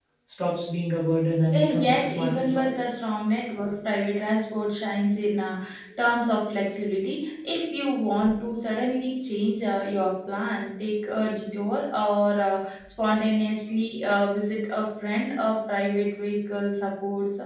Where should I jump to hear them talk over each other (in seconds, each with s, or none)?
1.5 s